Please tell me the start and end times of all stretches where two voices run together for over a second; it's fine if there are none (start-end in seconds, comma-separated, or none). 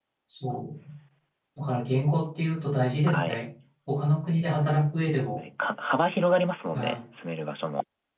none